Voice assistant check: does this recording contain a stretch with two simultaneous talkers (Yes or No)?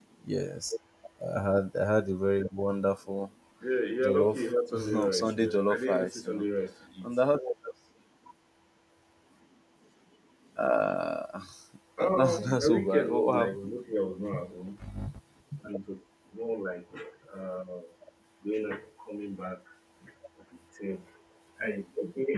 Yes